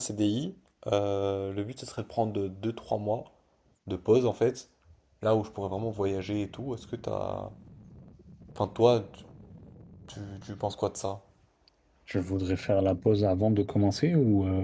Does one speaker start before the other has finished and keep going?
No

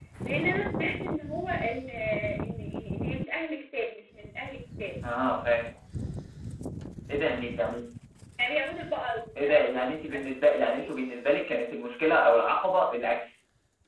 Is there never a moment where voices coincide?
No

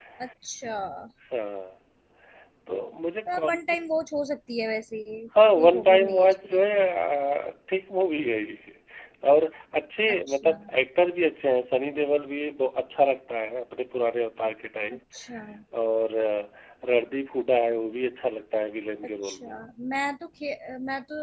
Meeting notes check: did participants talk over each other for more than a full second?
Yes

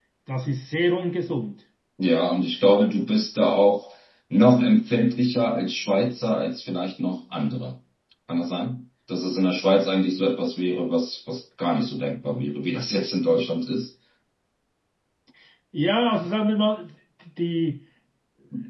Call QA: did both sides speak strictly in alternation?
Yes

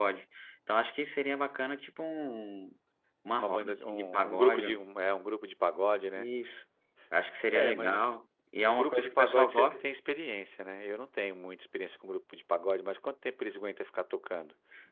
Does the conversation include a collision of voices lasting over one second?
Yes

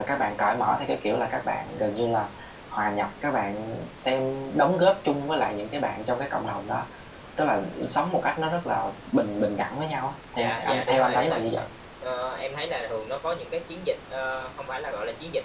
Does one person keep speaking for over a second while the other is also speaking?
Yes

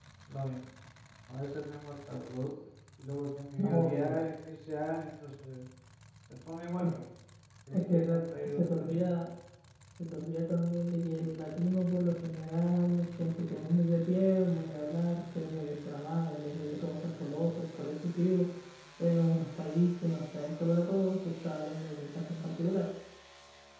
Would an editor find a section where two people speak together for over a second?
Yes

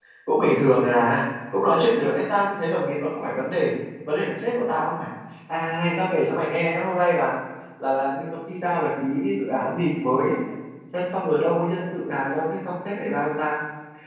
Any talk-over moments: No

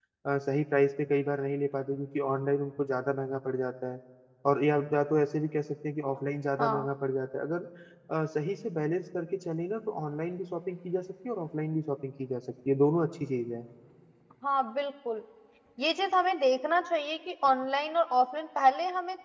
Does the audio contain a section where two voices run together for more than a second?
No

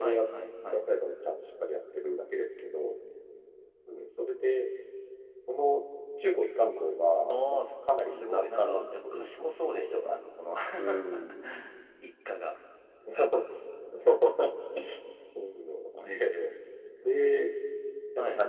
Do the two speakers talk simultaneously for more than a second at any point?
Yes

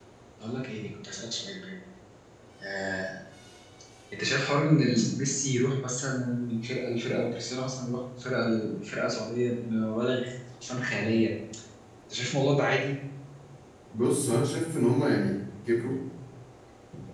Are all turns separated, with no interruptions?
Yes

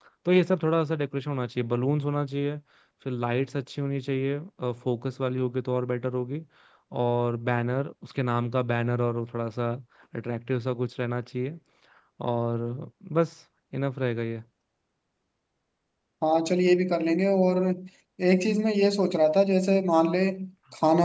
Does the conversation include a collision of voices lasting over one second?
No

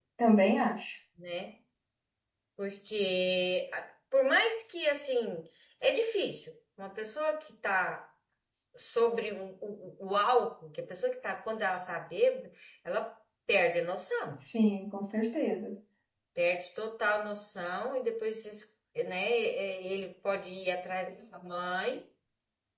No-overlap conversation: Yes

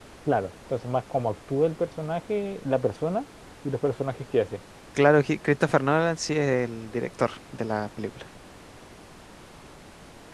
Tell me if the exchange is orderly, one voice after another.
Yes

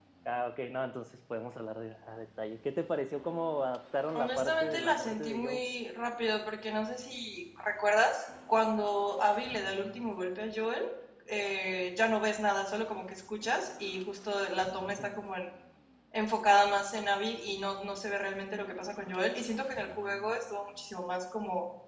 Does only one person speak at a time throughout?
No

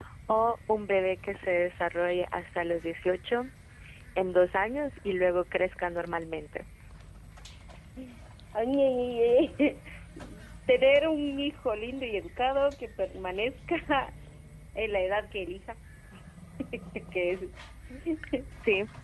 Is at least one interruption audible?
No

